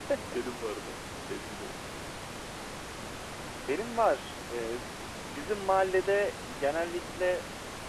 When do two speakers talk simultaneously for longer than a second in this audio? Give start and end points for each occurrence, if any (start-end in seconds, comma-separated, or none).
none